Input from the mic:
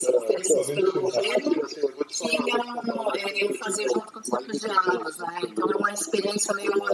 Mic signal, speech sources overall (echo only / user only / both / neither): both